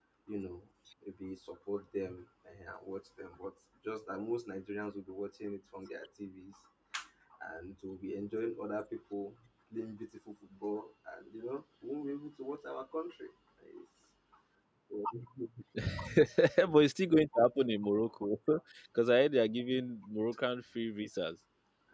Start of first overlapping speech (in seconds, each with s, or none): none